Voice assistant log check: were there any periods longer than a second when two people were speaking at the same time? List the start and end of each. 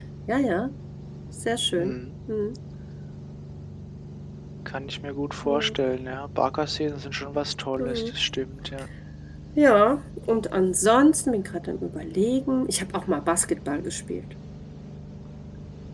none

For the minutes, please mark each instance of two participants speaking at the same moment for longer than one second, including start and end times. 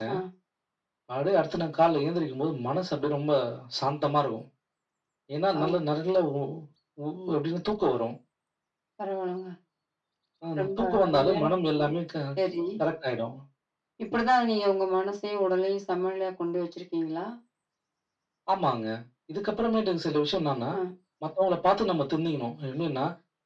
10.6-11.9

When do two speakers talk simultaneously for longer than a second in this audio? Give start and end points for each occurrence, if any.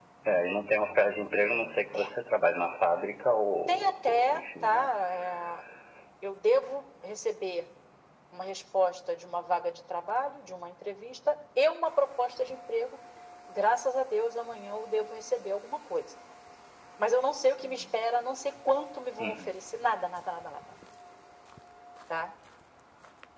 3.7-4.9

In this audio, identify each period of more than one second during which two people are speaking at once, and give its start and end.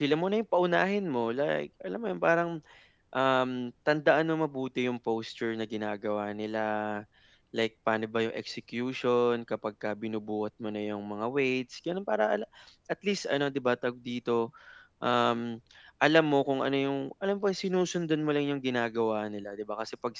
none

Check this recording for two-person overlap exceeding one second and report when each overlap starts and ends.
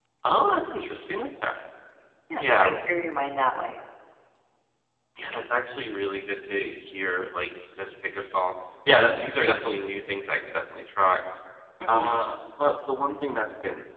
none

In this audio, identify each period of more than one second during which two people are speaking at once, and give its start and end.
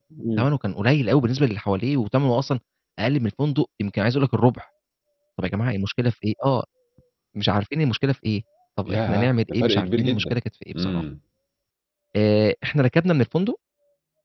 8.9-10.4

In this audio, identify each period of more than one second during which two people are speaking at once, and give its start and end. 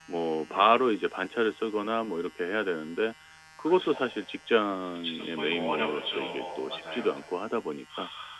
5.0-7.1

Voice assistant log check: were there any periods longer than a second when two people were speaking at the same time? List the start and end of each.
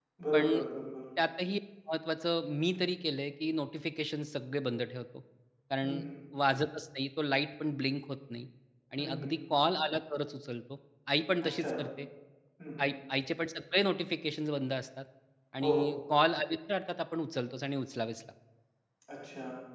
none

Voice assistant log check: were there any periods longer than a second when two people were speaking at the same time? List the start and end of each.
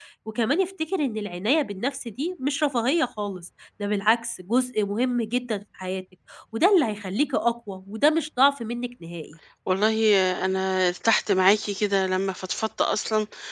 none

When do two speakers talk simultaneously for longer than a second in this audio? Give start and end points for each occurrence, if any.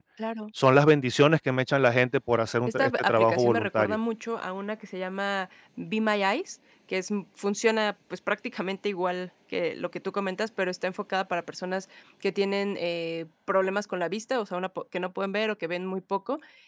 2.7-4.0

